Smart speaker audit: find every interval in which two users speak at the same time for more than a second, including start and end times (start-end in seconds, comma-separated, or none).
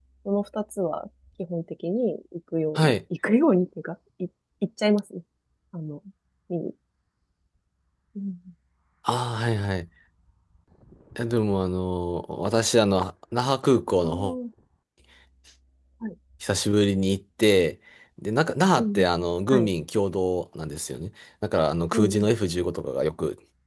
none